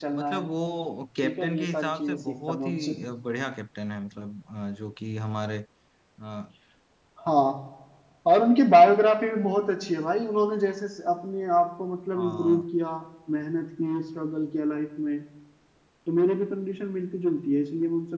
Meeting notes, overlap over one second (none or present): present